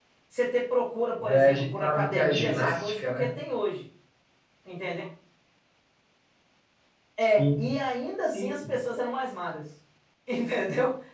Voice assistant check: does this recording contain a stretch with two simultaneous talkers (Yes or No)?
Yes